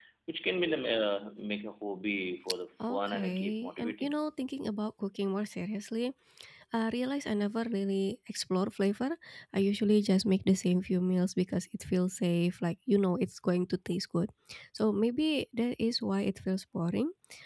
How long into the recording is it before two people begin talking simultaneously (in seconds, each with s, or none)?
2.8 s